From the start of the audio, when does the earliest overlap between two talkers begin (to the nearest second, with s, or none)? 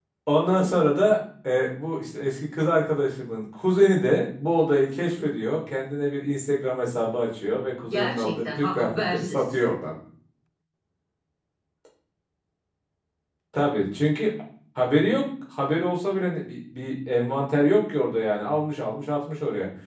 8 s